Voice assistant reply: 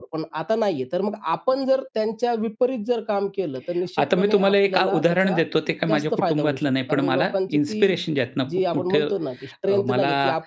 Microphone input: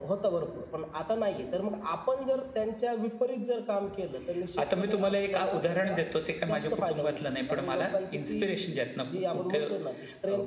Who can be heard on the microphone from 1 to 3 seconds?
echo only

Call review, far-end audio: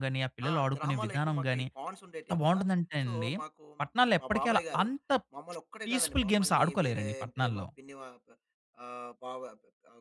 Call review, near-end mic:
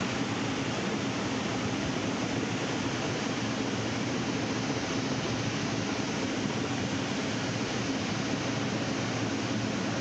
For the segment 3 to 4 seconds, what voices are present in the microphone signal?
neither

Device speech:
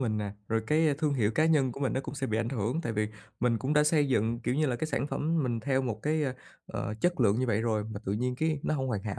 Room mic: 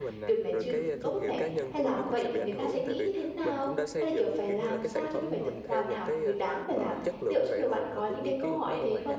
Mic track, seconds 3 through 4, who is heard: both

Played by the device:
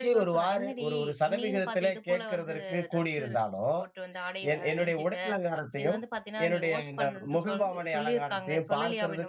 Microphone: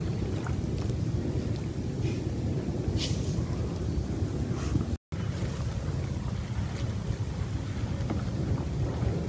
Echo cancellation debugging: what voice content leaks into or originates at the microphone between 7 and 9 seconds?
neither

